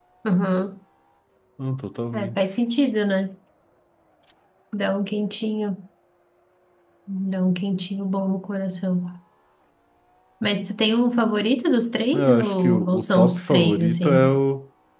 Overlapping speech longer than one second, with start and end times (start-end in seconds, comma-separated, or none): 12.1-14.3